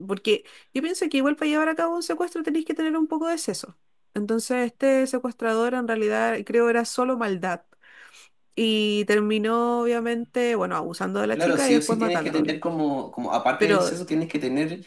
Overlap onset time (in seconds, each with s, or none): 11.4 s